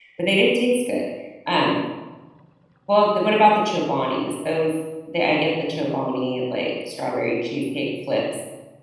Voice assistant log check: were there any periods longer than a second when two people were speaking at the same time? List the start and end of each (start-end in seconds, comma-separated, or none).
none